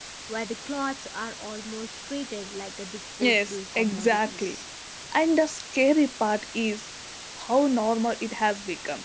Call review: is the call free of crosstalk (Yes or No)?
No